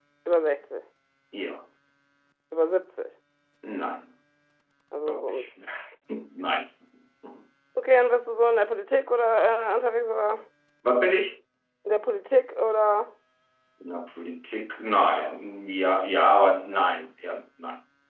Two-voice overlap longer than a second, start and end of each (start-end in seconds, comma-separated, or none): none